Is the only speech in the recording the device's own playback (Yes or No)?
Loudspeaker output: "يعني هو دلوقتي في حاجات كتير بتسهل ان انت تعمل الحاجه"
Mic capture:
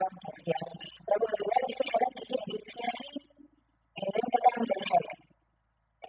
Yes